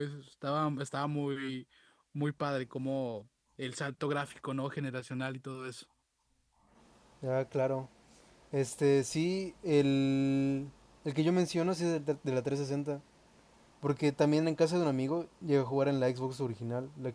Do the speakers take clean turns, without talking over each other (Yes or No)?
Yes